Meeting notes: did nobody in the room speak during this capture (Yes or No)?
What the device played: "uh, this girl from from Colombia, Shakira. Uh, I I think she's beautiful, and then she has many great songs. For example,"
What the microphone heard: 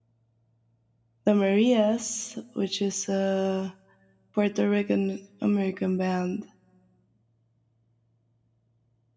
No